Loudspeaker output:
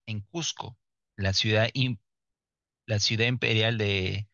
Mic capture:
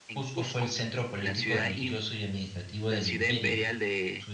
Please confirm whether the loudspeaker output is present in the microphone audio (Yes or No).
Yes